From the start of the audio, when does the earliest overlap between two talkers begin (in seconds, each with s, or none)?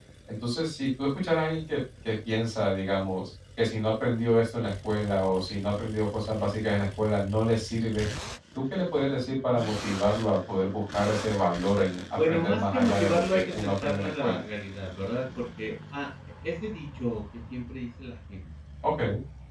12.2 s